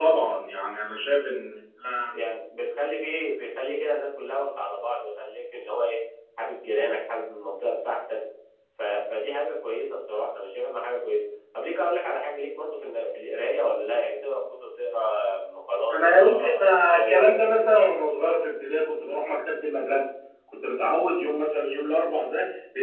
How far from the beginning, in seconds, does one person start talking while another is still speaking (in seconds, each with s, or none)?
15.9 s